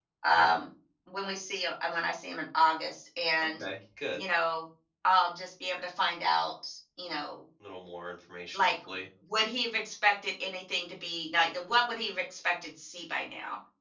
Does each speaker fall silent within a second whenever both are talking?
Yes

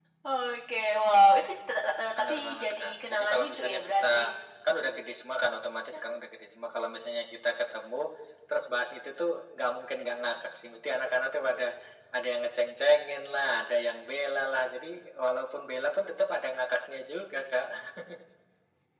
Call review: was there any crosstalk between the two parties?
Yes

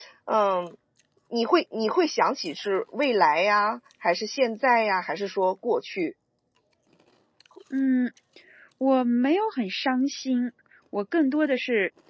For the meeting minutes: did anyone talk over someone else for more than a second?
No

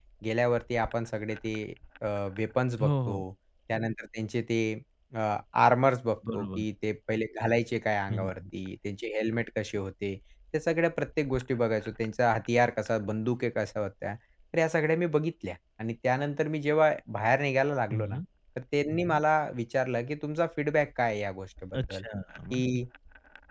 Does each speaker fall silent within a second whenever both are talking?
Yes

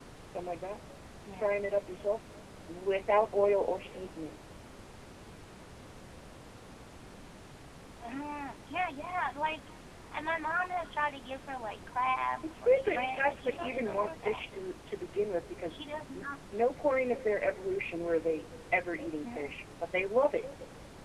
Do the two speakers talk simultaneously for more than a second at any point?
Yes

